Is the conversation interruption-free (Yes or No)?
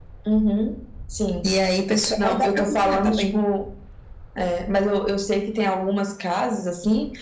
No